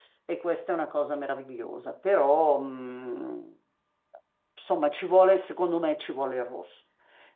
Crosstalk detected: No

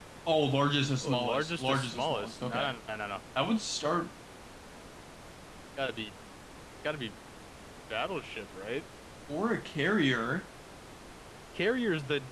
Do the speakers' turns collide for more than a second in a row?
Yes, from 1.0 s

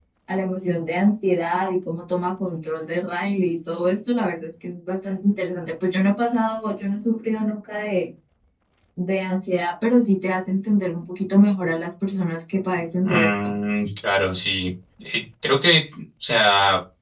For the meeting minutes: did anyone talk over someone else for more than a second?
No

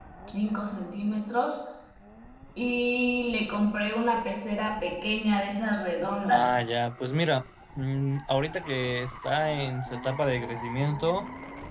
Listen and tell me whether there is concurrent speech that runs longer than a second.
No

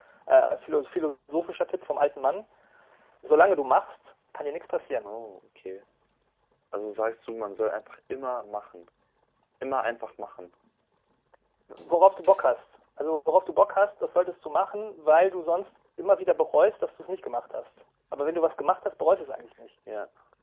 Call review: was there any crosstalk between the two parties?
No

